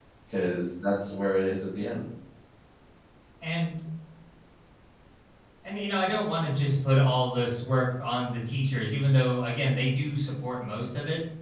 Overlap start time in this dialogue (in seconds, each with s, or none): none